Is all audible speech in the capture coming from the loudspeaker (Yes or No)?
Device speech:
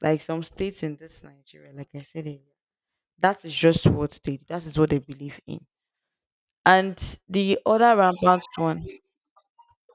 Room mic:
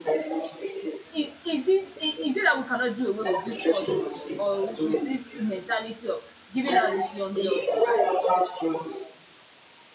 No